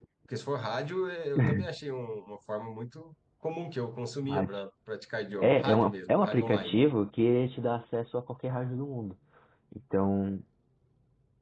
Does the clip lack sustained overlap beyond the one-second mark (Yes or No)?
No